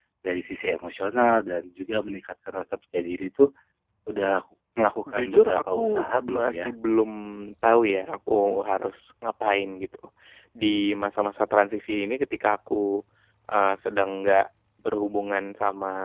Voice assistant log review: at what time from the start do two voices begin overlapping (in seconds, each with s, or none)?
5.1 s